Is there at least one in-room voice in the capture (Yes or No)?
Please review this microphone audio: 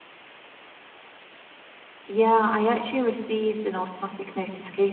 Yes